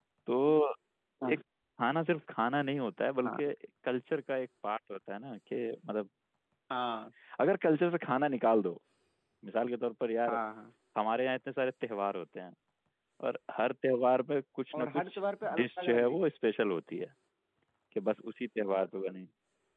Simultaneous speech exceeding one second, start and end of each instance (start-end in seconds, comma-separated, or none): 14.8-16.3